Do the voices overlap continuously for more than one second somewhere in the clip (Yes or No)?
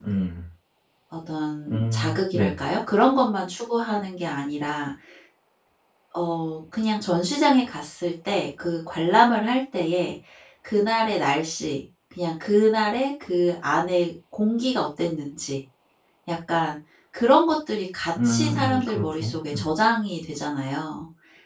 Yes